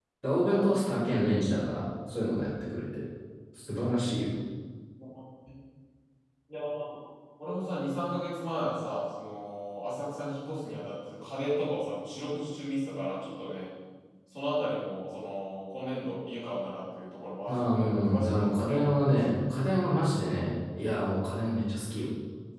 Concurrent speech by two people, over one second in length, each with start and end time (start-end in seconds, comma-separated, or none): 17.5-19.3